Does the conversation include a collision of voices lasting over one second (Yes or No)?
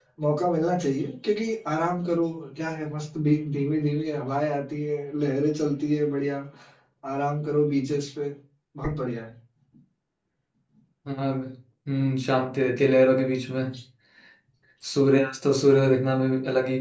No